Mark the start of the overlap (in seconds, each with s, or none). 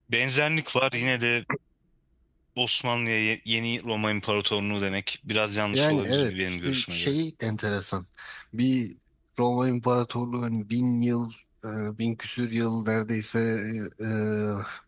5.7 s